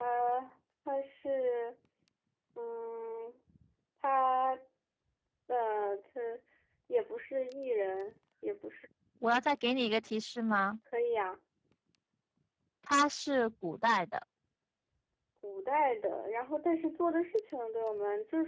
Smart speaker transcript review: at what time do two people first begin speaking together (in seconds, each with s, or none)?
none